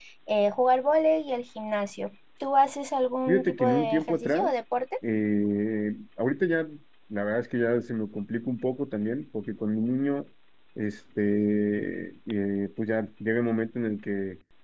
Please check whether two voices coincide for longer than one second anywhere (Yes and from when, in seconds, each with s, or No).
Yes, from 3.3 s